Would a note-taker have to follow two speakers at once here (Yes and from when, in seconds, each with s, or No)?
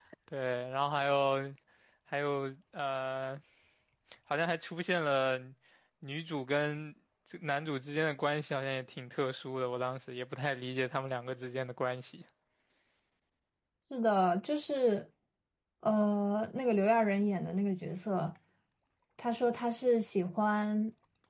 No